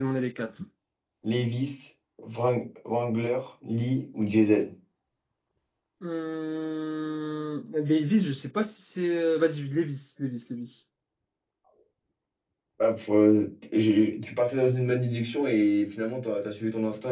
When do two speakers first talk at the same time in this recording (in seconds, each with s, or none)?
none